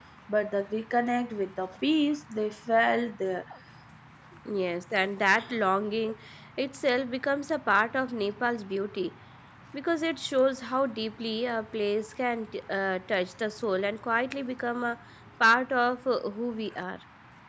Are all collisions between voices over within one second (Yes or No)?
Yes